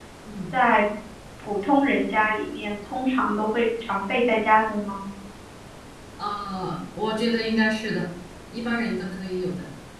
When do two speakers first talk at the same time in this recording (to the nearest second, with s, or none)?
none